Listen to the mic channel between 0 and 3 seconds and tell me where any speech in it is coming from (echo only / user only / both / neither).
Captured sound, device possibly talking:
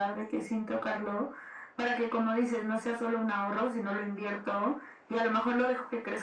echo only